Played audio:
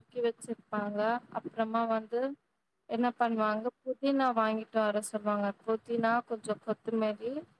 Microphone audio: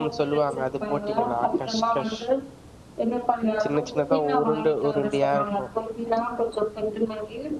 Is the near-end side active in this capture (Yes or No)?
Yes